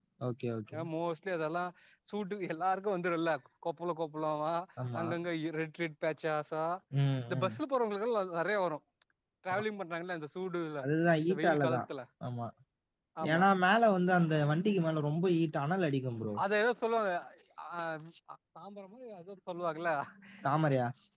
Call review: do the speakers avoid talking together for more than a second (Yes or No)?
Yes